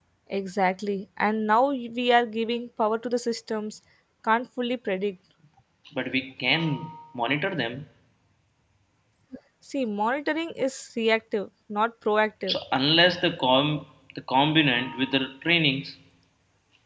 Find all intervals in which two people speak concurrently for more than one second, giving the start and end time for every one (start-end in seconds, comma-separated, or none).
none